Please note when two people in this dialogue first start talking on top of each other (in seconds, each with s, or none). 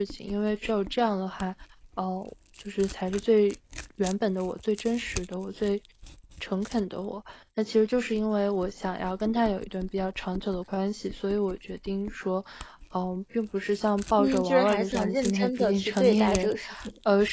14.2 s